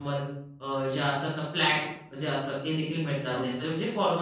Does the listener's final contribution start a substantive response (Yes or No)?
No